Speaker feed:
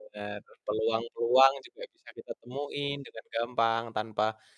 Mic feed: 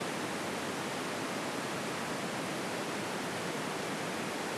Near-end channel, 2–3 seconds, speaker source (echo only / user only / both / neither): neither